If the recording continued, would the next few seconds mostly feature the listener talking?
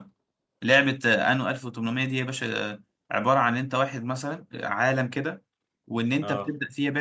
No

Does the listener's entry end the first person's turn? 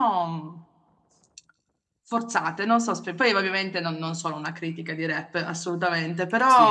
No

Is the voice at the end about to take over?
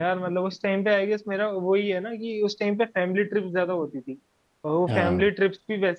No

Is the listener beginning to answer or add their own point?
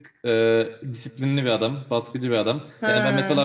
No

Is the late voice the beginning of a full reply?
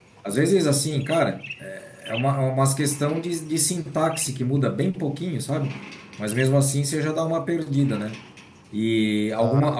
No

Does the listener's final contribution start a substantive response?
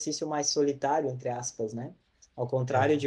No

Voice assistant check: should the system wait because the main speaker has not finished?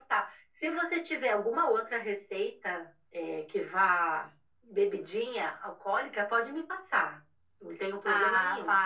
No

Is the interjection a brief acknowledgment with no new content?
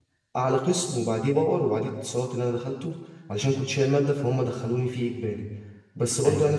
Yes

